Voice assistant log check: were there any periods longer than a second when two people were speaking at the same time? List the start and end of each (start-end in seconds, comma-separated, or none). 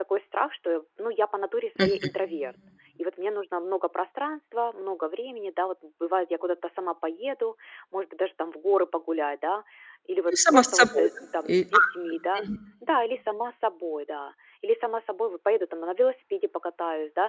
10.3-11.8